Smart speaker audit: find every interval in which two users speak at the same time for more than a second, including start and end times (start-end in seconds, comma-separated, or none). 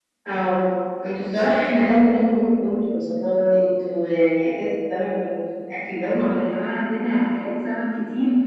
none